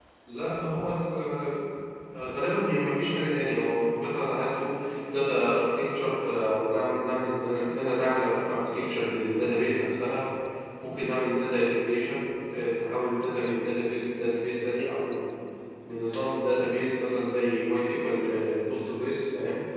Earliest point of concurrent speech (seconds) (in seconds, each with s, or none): none